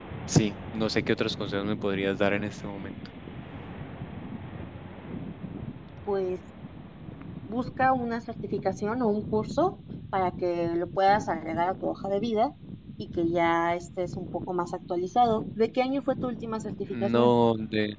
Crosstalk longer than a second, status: none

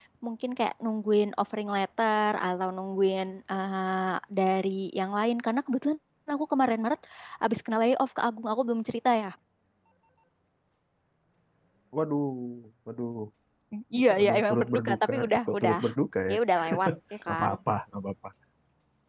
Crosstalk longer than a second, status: present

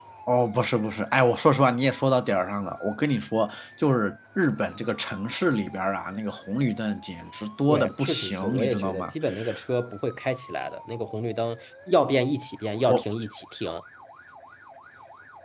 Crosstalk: present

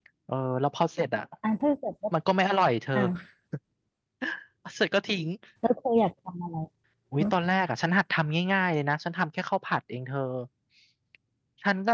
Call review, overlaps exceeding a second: none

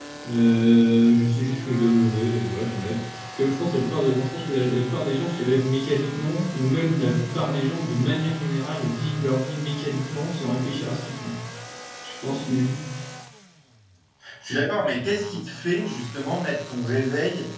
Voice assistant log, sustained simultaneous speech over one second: none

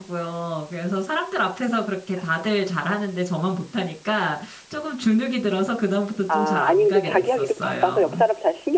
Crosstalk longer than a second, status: present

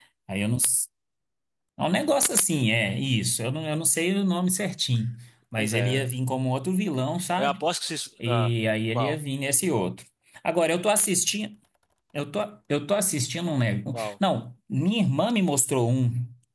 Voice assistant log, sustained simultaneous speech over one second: none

